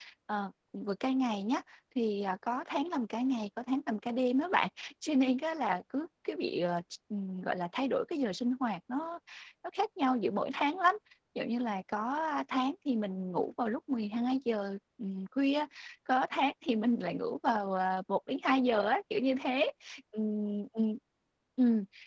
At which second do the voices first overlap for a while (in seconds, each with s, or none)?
none